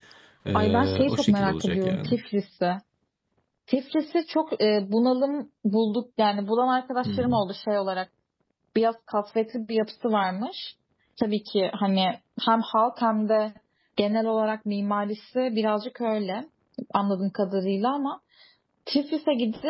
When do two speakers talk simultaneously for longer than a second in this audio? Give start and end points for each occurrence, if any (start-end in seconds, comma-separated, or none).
0.5-2.2